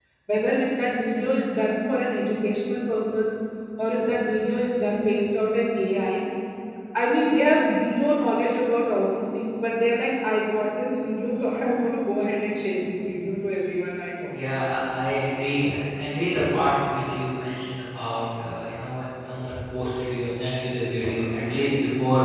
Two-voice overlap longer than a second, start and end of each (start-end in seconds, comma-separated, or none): none